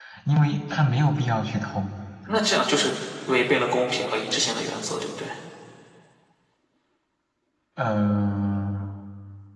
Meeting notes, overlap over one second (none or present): none